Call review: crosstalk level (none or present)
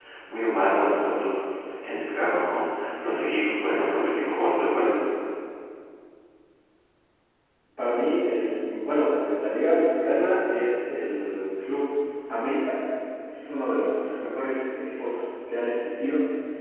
none